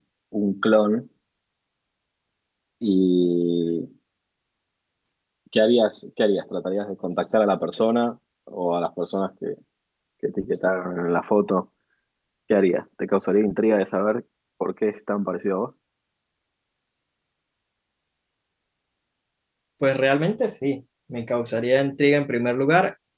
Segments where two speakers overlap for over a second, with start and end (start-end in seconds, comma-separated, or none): none